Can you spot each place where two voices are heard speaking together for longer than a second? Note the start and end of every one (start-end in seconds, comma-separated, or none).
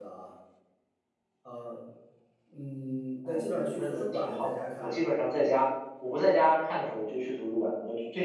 3.2-5.0